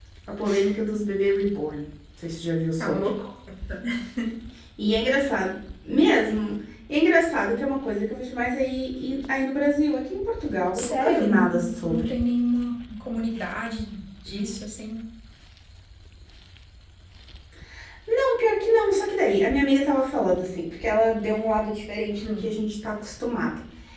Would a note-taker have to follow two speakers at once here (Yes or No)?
Yes